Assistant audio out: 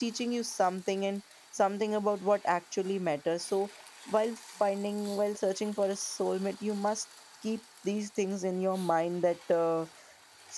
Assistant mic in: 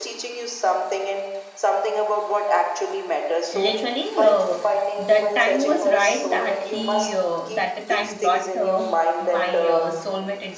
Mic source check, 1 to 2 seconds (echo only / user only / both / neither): echo only